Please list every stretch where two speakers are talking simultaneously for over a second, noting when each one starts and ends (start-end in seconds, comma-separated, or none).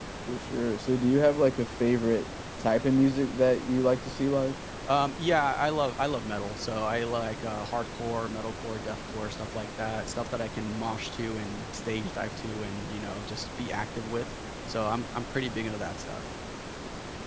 none